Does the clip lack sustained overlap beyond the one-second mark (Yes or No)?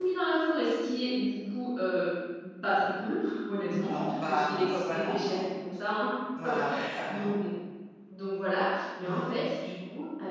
No